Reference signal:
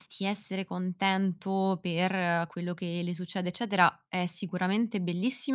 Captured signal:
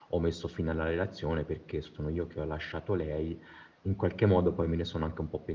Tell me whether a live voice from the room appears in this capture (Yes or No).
Yes